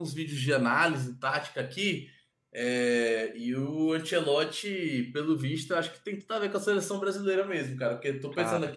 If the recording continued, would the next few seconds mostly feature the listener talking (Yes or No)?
No